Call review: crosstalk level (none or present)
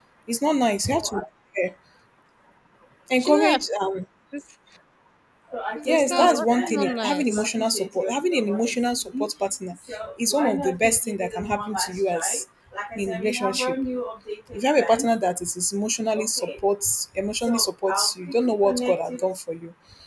present